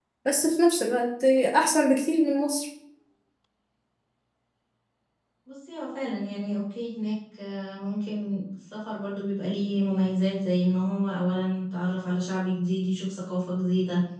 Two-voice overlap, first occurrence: none

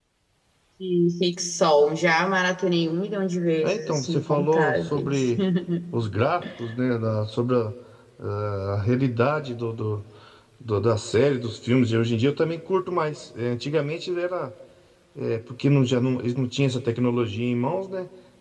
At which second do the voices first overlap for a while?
3.6 s

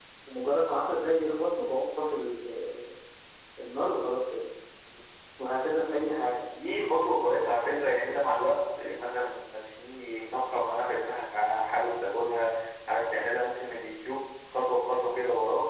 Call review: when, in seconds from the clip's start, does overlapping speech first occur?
none

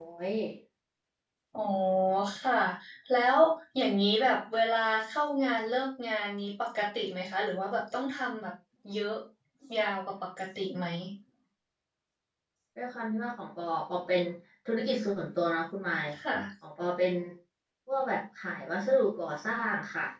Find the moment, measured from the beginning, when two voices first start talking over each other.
none

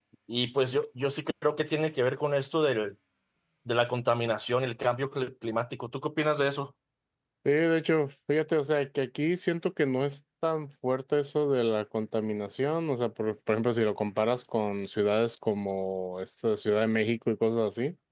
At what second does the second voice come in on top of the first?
none

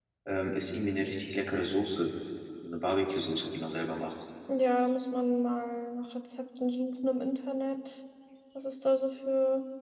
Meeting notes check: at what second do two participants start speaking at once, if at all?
none

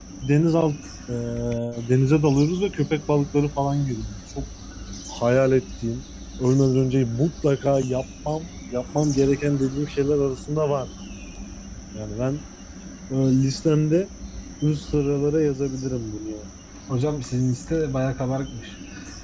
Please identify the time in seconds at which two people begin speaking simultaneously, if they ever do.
none

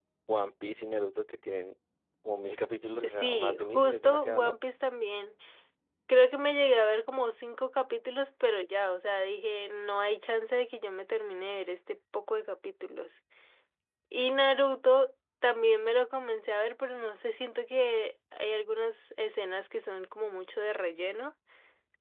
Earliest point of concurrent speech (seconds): 2.7 s

